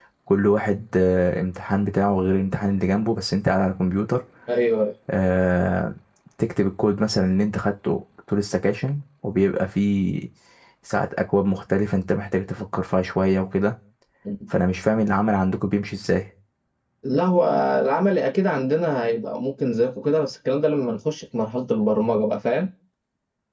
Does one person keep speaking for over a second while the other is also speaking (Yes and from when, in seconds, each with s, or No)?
No